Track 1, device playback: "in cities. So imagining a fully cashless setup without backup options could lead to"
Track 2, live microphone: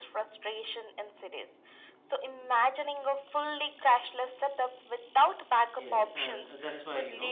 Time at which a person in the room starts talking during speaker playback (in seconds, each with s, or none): 5.8 s